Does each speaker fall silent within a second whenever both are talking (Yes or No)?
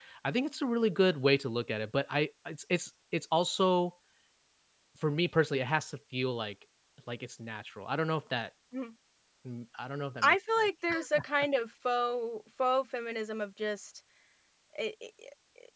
Yes